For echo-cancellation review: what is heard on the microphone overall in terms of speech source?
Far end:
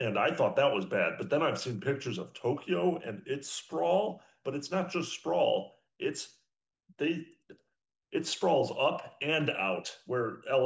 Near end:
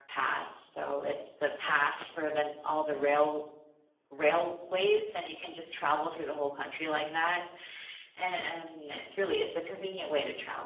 user only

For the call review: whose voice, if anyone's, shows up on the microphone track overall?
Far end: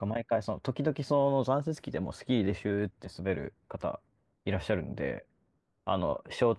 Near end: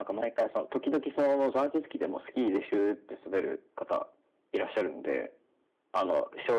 echo only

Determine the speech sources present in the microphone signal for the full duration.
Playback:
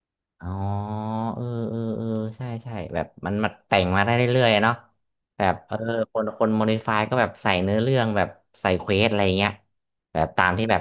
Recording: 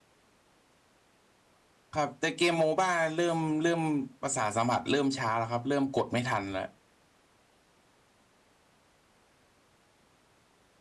user only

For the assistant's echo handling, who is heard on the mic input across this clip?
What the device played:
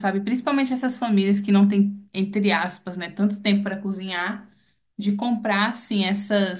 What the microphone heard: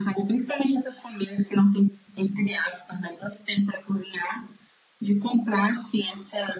echo only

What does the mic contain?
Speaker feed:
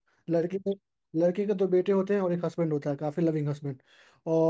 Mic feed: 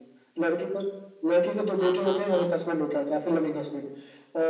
both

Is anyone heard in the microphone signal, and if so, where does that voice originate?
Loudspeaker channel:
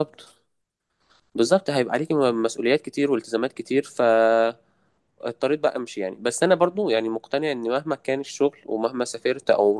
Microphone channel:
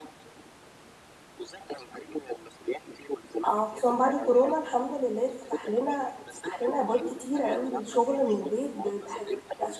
both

